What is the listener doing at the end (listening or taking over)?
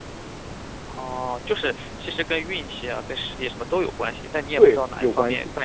taking over